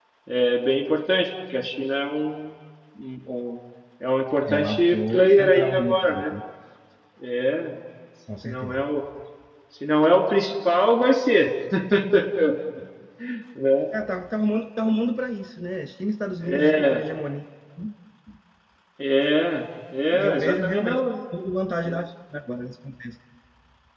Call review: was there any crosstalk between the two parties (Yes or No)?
Yes